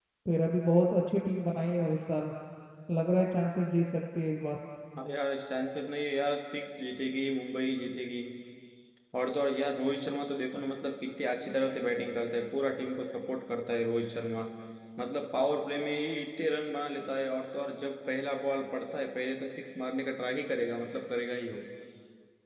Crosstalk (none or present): none